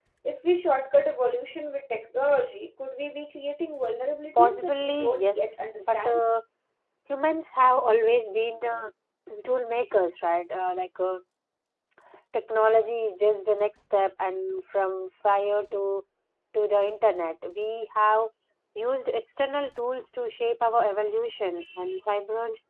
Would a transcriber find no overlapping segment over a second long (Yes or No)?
No